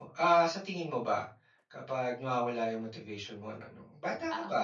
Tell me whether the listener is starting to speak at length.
No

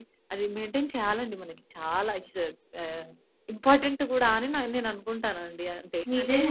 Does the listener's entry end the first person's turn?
Yes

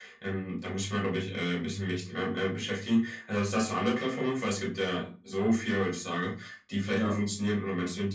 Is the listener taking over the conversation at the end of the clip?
No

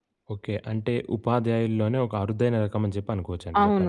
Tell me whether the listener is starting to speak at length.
Yes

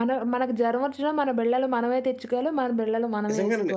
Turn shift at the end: Yes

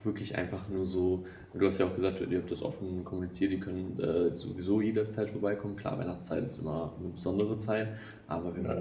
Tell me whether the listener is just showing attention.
Yes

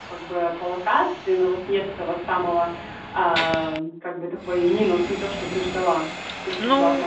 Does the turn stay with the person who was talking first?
Yes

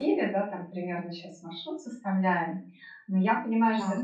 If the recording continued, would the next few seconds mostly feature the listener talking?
No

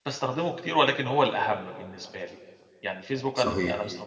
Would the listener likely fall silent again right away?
Yes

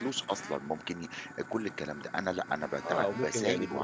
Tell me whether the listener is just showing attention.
No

